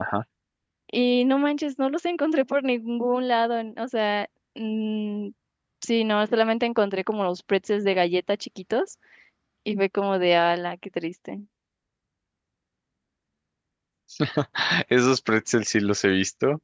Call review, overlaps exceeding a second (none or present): none